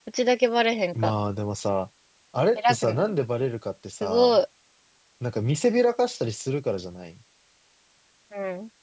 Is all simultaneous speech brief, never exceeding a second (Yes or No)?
Yes